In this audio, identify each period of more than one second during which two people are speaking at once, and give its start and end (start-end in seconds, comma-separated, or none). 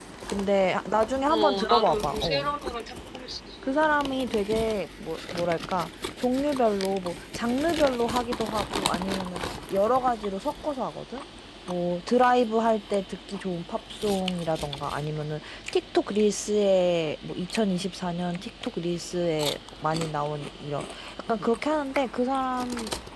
1.3-2.5